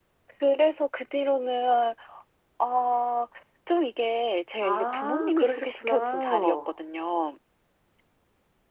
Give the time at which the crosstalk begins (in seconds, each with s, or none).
4.6 s